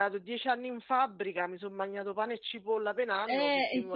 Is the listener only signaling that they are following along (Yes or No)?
No